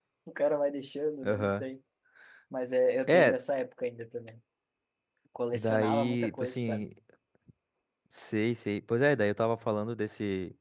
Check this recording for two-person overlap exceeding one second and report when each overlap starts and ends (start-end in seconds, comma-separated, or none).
5.5-6.8